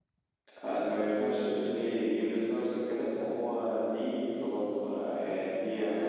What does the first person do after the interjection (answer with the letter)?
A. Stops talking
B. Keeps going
A